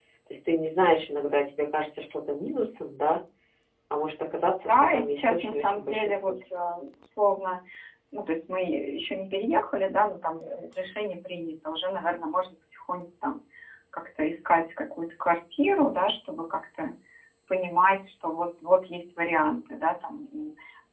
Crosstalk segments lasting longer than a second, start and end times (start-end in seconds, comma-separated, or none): 4.6-6.3